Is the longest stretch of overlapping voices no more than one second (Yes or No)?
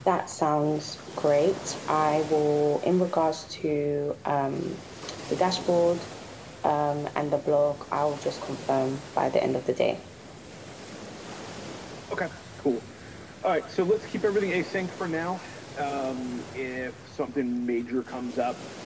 Yes